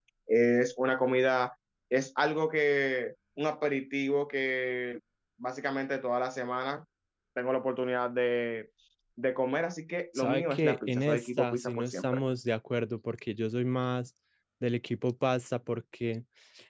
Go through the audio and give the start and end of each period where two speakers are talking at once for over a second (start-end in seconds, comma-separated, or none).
10.2-12.2